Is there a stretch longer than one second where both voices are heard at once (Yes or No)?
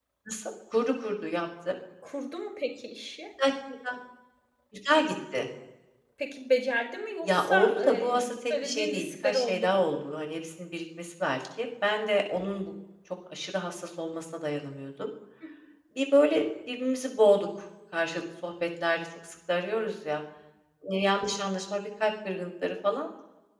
Yes